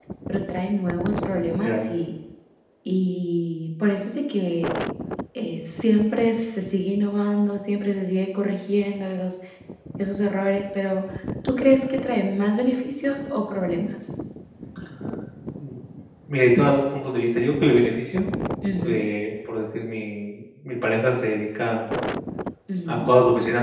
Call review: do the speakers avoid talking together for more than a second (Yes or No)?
Yes